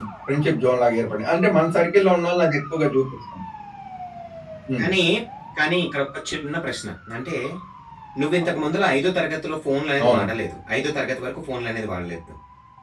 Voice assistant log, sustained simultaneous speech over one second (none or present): none